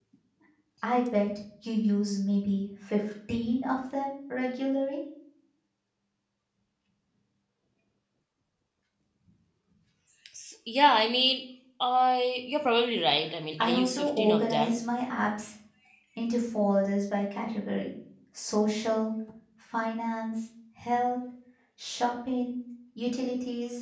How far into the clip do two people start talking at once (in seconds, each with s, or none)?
13.6 s